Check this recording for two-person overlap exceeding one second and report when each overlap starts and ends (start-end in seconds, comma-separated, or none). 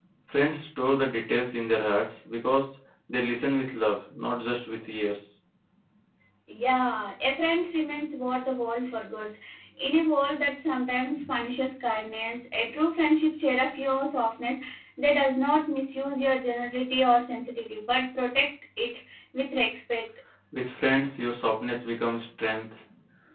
none